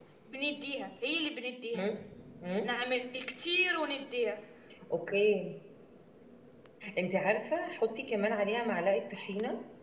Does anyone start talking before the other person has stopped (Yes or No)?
No